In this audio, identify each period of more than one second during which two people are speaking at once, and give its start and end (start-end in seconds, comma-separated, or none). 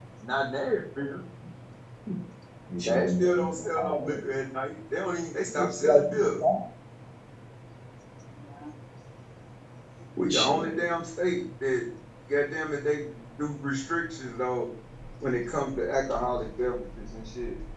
2.9-4.2